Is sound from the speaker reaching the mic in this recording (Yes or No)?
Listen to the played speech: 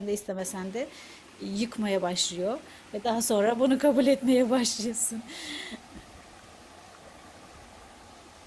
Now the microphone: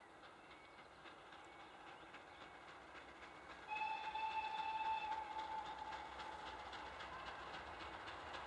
No